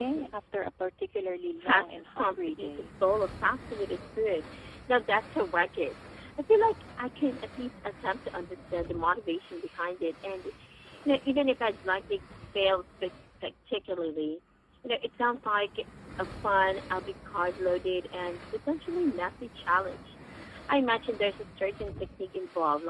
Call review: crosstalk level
present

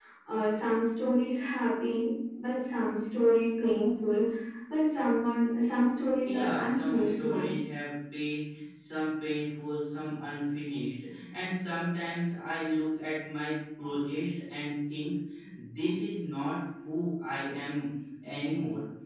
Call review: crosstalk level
present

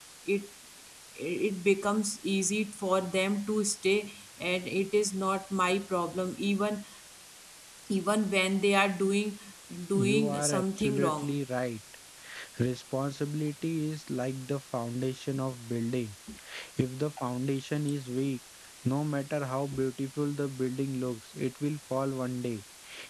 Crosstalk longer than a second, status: present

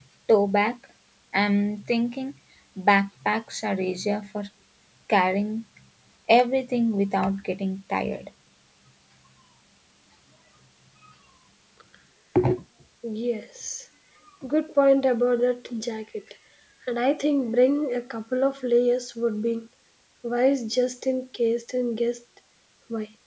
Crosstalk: none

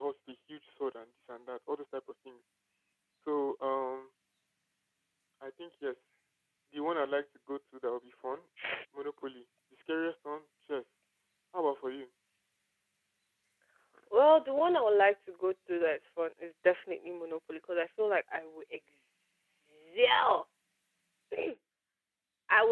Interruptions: none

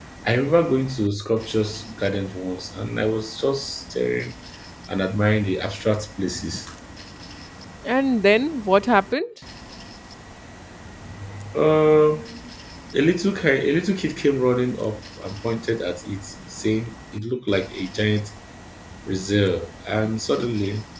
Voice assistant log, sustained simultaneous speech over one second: none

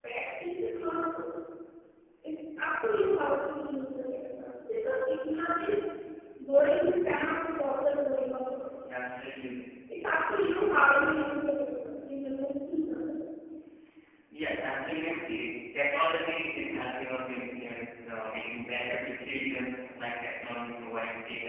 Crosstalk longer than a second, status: none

